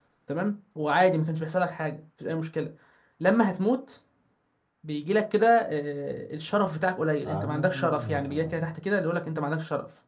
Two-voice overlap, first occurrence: 7.2 s

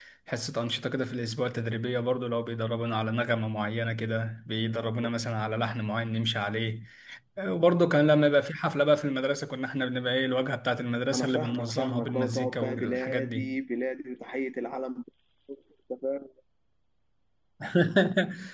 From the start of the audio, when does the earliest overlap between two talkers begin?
11.1 s

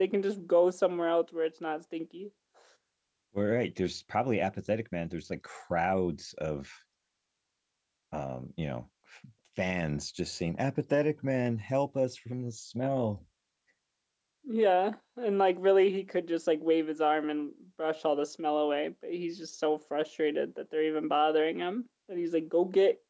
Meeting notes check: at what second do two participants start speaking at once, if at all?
none

